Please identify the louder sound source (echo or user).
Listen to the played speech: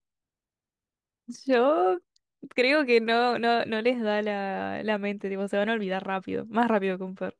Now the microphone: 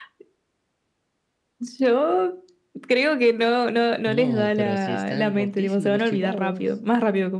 echo